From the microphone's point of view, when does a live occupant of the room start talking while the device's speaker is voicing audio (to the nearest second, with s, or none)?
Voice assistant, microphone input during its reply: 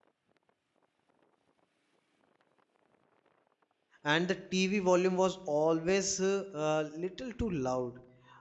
4 s